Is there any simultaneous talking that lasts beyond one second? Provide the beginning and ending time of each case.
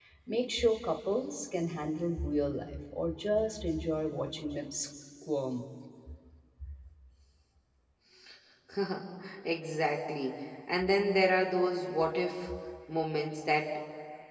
none

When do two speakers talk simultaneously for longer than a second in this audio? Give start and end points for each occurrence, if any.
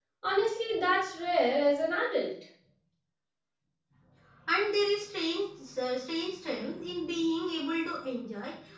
none

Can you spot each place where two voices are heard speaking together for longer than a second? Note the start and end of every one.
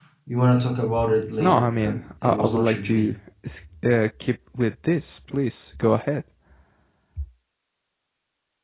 1.4-3.1

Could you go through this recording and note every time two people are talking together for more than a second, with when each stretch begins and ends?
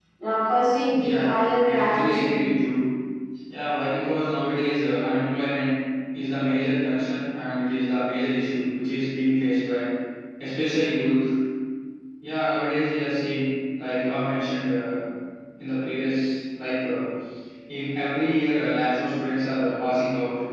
0.9-2.3

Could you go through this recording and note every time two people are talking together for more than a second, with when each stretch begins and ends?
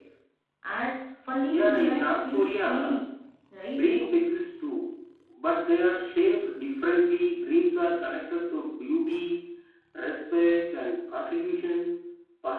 1.5-3.0

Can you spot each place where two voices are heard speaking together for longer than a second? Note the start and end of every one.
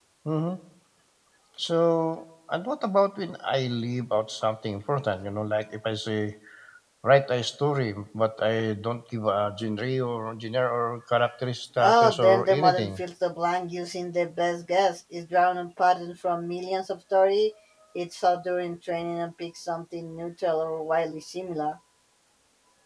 11.8-13.0

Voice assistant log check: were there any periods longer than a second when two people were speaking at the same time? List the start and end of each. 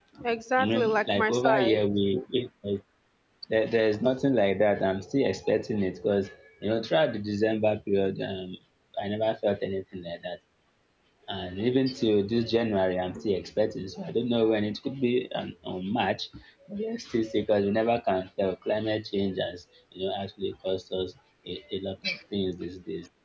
0.6-1.8

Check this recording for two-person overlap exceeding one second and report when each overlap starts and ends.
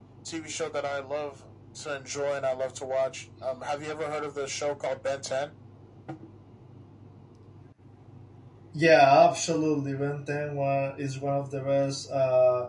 none

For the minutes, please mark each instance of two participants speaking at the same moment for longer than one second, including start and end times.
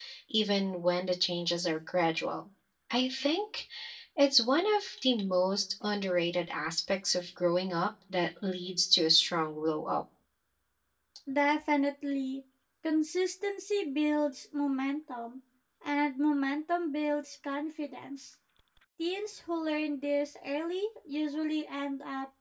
none

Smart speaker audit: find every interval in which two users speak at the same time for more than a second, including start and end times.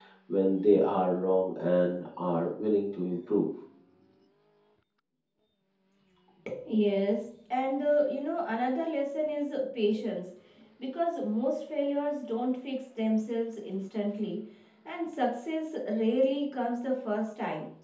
none

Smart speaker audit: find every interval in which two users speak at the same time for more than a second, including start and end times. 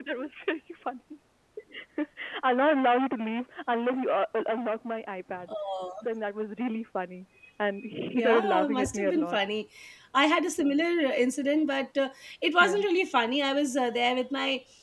8.2-9.4

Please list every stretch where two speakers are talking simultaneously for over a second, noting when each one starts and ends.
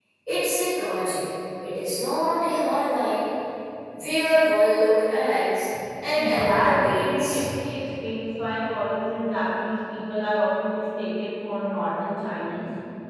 6.2-7.4

